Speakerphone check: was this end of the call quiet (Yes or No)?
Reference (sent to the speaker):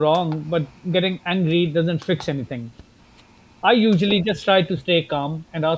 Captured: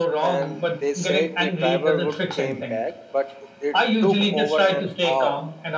No